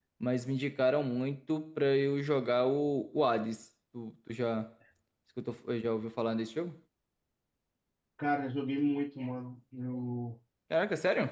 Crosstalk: none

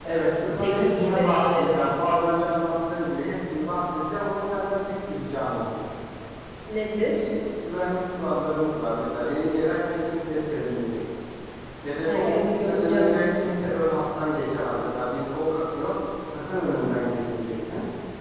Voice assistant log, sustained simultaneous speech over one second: present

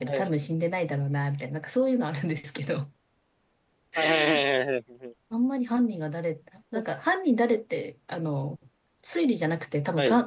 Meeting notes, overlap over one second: none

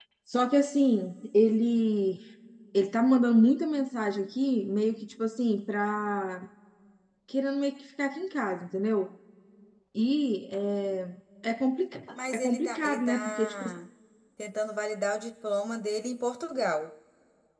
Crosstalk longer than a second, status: present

